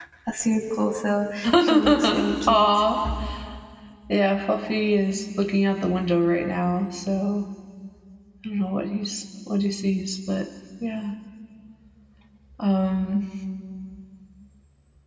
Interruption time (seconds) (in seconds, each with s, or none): 1.4 s